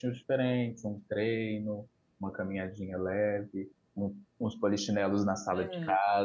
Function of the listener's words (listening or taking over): listening